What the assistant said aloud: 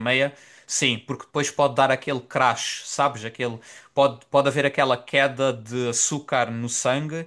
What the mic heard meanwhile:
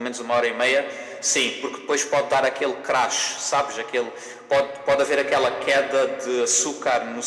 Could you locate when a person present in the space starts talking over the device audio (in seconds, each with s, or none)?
none